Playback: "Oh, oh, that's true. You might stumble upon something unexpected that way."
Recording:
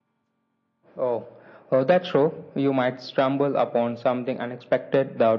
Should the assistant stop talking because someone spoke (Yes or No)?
No